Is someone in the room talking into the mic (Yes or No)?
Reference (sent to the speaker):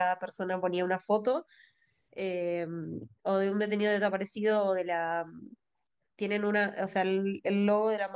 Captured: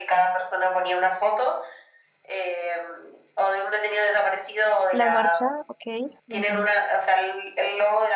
Yes